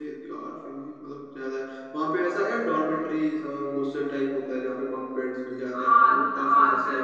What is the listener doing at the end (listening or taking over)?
taking over